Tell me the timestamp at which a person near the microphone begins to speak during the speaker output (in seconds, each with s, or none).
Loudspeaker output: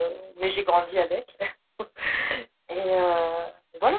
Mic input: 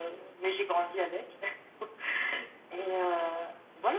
none